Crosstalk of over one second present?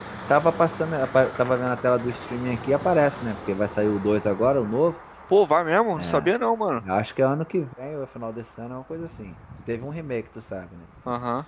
No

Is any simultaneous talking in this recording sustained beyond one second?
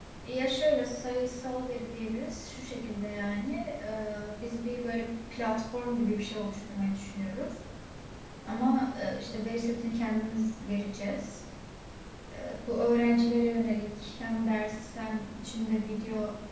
No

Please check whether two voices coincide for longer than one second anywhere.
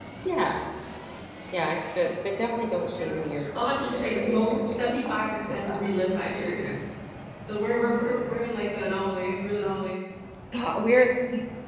Yes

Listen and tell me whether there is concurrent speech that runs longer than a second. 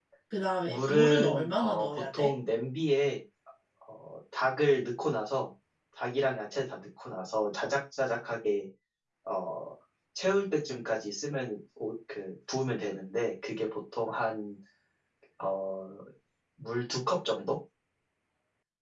Yes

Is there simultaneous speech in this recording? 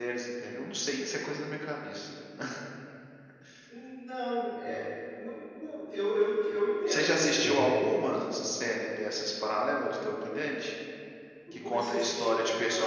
Yes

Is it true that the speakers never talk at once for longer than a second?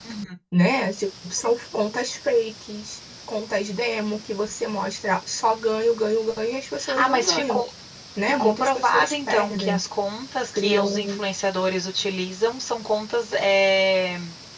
No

